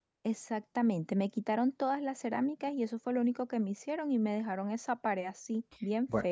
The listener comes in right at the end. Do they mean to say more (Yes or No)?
Yes